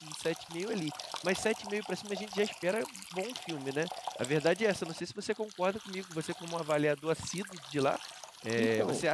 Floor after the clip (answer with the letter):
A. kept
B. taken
A